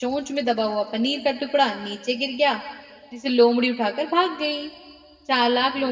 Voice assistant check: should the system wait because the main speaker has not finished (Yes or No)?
Yes